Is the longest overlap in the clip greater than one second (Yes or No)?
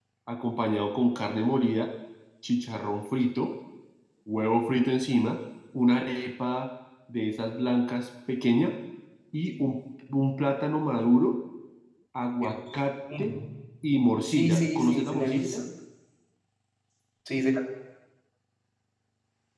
Yes